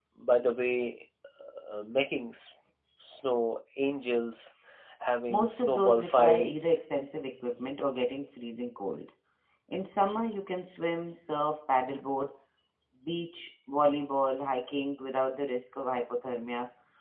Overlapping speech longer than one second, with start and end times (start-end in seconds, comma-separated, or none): 5.3-6.8